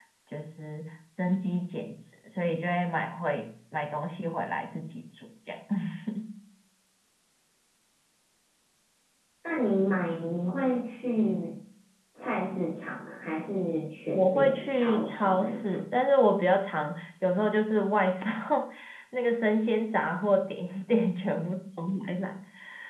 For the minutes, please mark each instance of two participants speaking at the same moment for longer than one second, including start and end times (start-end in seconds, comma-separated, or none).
14.1-15.8